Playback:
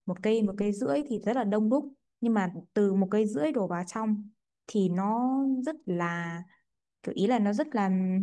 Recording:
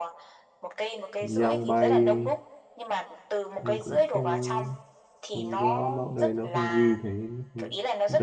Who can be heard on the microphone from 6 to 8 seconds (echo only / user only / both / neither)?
both